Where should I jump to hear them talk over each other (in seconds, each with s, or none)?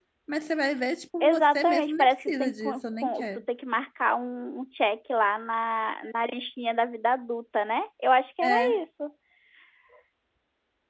1.2 s